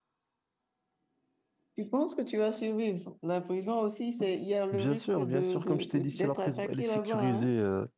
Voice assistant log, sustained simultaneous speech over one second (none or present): present